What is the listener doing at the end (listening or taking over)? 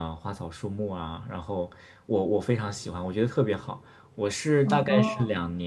listening